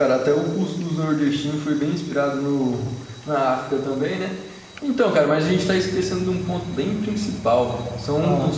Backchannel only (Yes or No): Yes